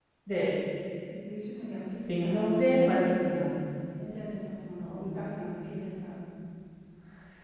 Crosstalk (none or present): present